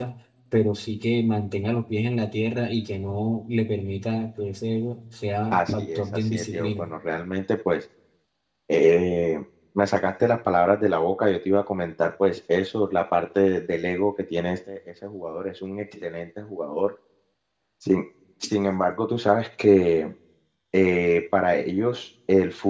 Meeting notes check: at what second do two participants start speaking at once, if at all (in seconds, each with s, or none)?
5.5 s